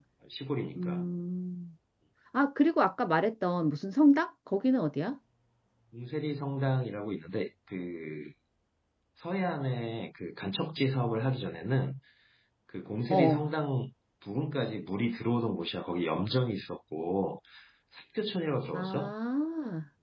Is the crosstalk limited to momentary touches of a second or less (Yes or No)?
Yes